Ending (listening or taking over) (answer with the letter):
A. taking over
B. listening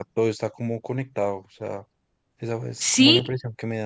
A